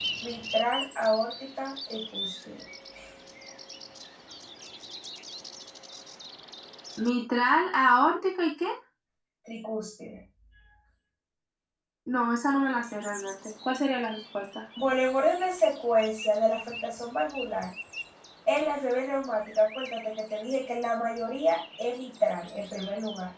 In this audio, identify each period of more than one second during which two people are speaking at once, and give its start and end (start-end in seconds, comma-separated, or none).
none